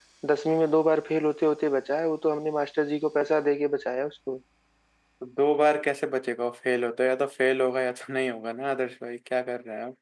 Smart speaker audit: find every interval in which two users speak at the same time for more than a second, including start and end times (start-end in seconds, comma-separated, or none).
none